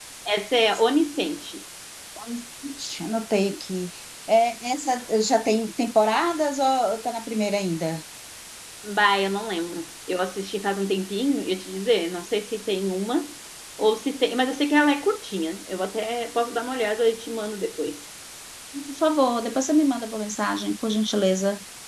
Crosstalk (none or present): none